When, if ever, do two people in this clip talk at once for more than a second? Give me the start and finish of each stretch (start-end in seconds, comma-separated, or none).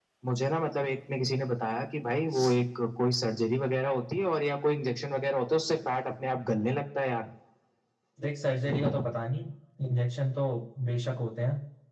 none